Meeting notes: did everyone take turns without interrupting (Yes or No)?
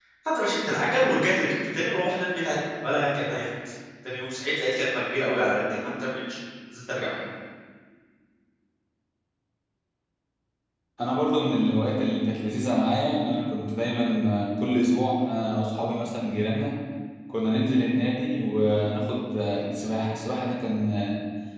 Yes